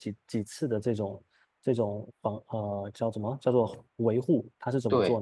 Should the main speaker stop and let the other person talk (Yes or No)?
No